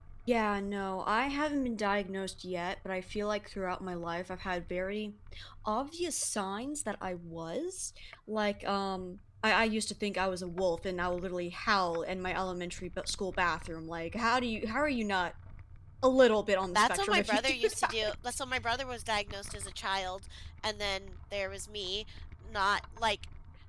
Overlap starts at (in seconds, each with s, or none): 16.7 s